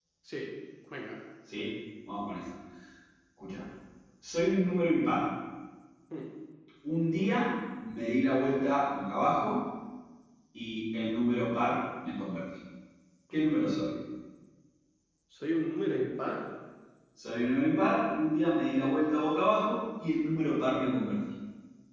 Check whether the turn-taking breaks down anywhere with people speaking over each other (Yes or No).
No